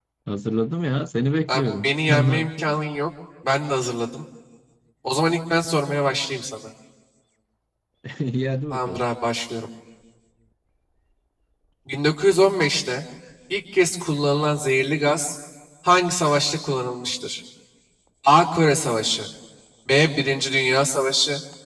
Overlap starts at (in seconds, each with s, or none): 1.5 s